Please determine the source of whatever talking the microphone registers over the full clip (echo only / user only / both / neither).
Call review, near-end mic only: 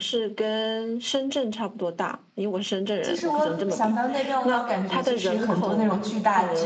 both